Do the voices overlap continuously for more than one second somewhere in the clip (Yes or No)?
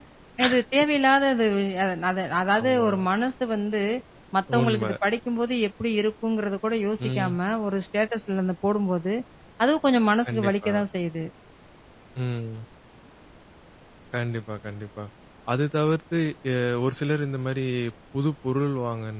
No